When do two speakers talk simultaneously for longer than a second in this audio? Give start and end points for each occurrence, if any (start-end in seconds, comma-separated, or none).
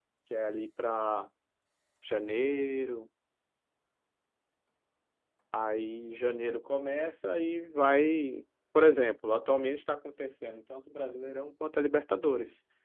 none